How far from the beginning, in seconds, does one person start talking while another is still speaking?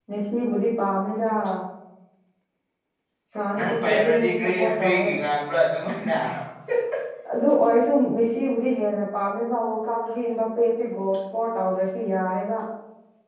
4 s

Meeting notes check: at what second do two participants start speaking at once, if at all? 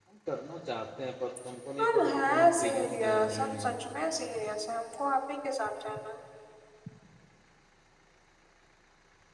2 s

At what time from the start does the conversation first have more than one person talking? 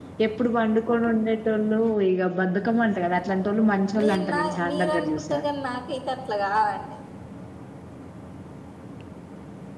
4 s

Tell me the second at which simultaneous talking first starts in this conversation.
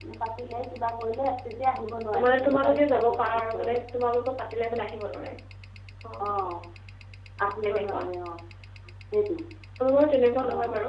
2 s

